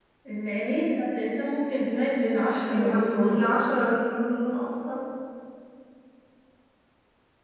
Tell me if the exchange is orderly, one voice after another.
No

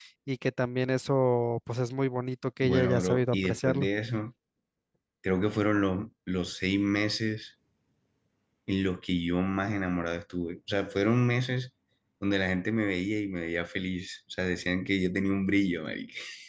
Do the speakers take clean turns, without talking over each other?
No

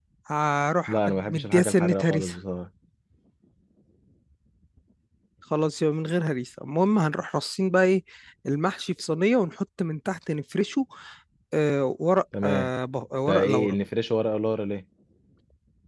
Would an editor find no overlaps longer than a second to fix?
No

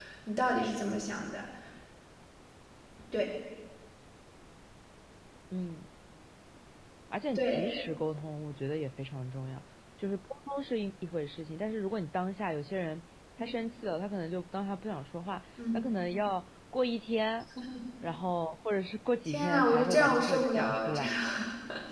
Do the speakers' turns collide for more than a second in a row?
Yes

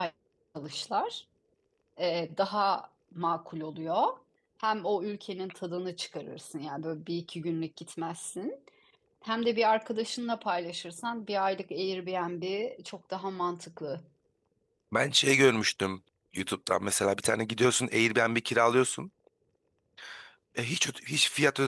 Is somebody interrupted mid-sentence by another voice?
No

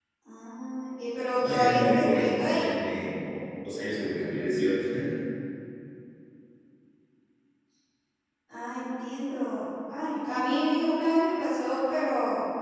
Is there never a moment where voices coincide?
No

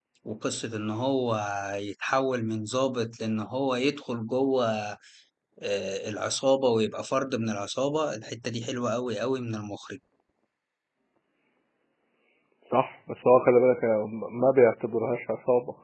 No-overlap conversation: Yes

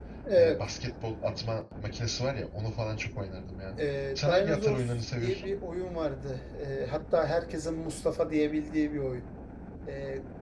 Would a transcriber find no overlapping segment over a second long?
No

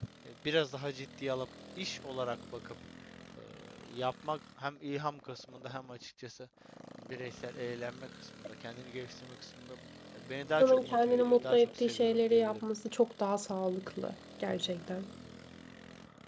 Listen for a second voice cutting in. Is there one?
Yes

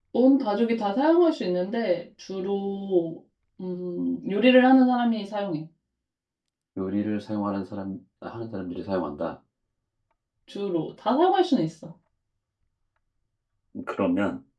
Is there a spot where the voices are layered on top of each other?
No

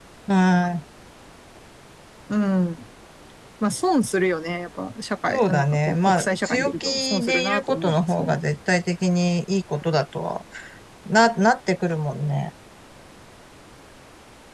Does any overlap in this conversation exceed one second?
Yes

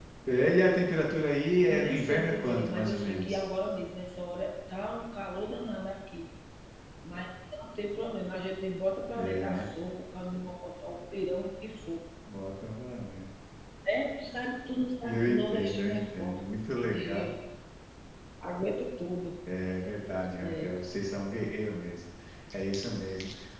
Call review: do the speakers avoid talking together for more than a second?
No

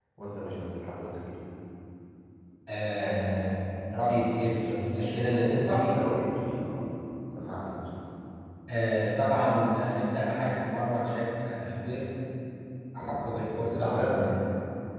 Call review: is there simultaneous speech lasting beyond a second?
Yes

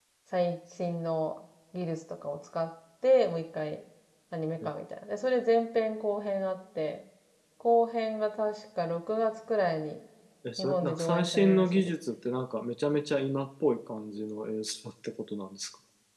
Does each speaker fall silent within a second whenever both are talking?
No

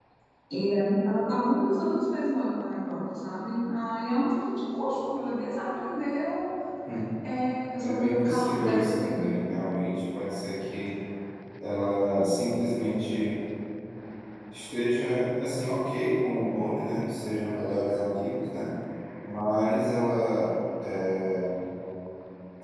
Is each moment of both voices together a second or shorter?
No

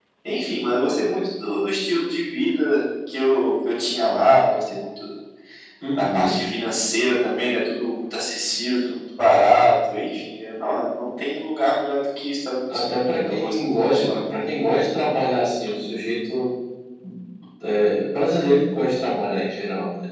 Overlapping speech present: Yes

